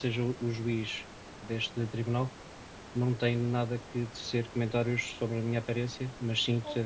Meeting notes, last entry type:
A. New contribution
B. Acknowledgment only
B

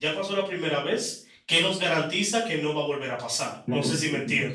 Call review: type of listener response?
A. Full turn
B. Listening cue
A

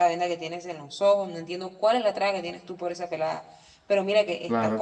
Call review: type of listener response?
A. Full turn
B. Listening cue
B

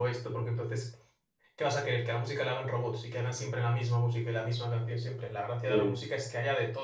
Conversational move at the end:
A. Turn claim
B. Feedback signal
B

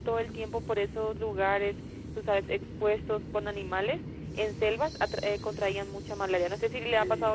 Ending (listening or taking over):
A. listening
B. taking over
B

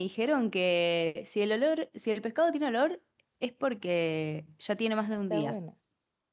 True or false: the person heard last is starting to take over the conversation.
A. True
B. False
A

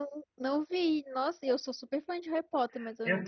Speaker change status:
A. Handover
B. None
A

